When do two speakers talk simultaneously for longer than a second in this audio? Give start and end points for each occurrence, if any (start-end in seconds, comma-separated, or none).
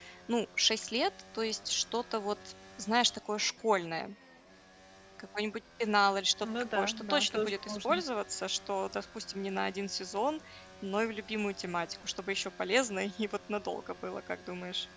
6.4-8.0